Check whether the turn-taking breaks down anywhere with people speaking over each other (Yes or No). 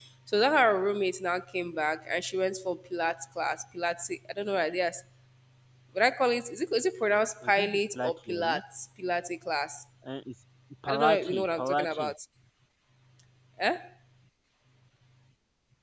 Yes